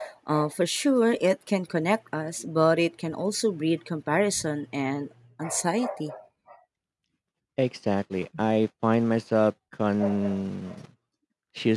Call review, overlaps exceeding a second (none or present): none